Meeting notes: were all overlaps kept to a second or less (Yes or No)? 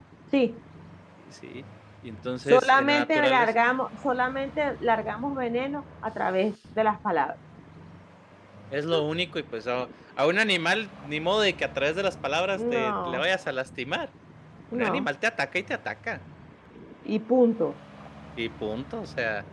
No